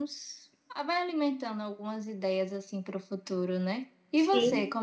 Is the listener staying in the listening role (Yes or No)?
Yes